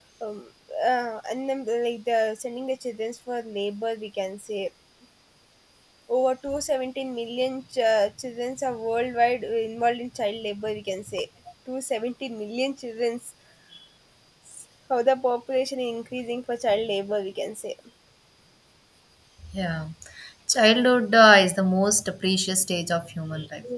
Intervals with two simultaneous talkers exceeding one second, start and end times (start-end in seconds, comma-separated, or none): none